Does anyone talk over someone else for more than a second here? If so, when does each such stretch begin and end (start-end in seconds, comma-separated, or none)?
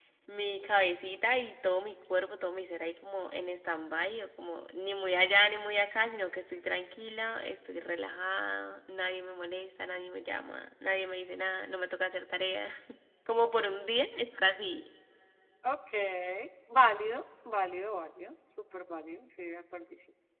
none